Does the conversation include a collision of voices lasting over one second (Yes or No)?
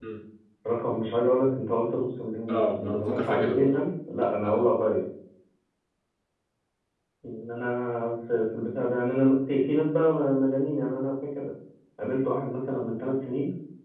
Yes